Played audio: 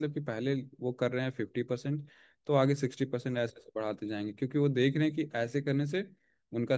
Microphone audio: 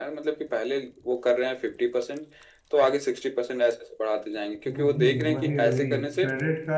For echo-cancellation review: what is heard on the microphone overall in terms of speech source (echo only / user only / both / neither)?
both